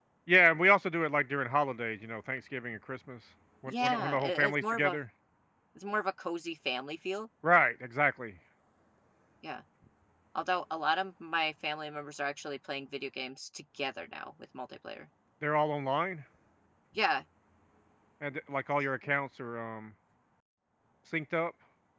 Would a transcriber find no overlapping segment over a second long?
No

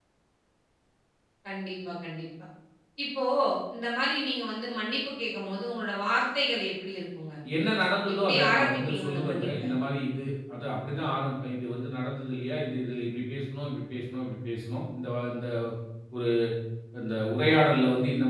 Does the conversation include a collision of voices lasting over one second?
Yes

